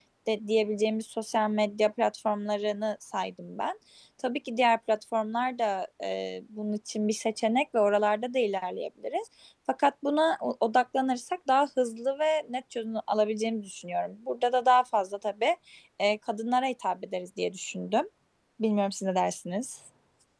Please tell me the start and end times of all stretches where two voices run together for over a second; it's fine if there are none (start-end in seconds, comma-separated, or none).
none